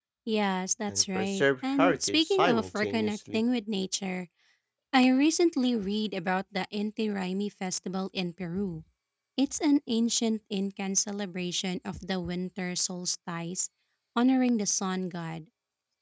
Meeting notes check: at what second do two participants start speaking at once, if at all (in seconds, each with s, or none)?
0.9 s